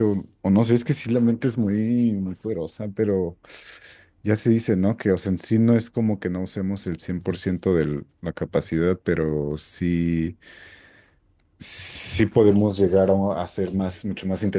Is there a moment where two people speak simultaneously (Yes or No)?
No